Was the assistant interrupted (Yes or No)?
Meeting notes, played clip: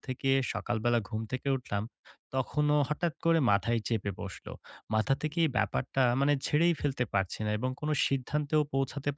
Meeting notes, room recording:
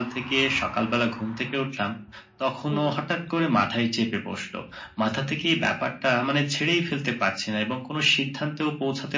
Yes